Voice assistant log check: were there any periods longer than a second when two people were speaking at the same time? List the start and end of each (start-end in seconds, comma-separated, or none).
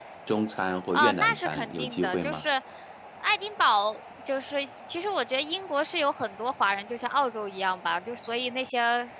0.9-2.4